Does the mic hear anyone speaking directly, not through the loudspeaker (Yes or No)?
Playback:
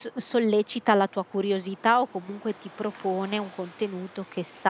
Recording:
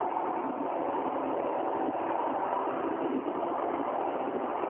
No